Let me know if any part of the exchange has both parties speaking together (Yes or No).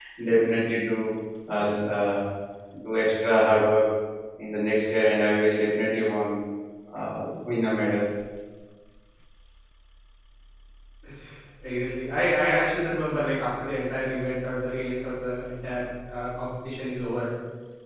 No